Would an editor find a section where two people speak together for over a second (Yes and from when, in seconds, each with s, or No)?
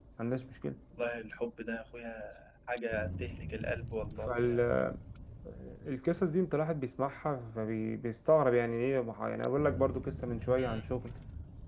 No